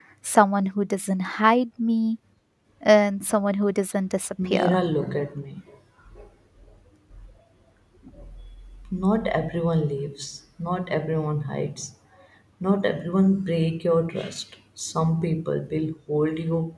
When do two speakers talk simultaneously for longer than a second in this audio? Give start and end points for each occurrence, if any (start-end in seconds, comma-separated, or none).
none